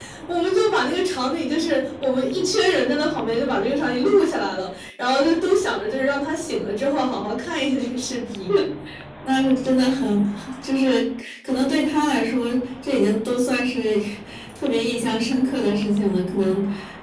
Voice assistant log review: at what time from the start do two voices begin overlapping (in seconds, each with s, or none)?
none